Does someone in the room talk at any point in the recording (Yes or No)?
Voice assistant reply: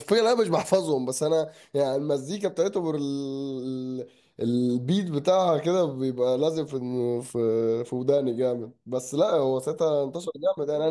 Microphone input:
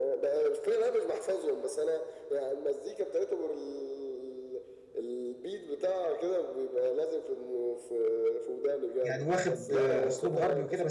Yes